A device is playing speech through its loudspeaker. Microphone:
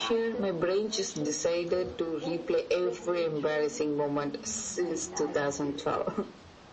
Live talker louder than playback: No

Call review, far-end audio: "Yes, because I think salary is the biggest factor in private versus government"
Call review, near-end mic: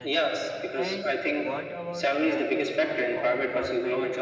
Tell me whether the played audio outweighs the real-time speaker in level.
Yes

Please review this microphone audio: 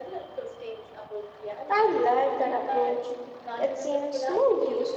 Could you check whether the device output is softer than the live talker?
Yes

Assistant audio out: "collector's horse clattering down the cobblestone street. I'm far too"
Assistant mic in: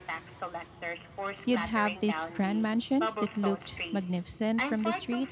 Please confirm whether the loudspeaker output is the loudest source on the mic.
No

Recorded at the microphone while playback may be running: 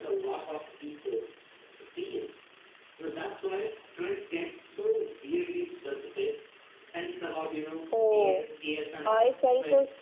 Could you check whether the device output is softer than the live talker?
Yes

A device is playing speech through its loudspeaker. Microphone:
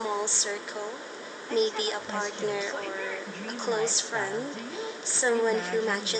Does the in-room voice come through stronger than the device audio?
No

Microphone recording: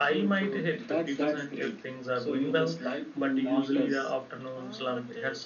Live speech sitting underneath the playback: Yes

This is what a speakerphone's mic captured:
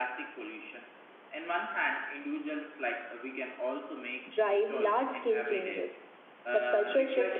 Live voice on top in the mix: Yes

